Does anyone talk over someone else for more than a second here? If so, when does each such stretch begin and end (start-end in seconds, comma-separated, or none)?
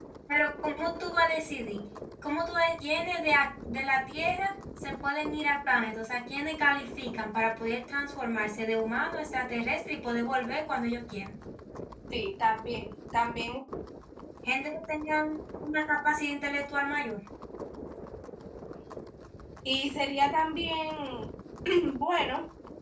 none